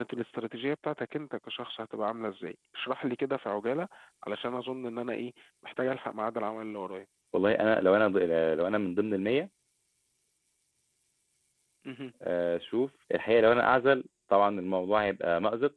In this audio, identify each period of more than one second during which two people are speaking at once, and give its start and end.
none

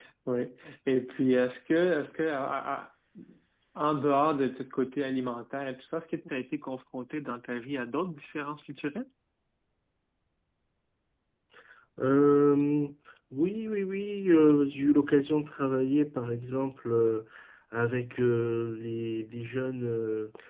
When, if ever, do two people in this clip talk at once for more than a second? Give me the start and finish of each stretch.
none

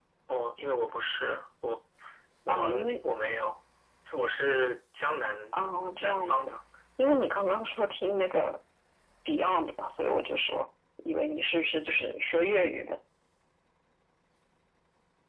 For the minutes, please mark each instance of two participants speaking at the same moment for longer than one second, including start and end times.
none

